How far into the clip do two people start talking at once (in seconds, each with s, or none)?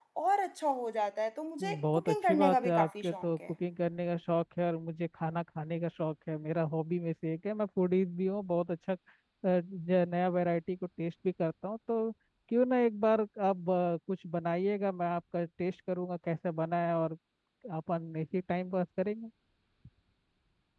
1.6 s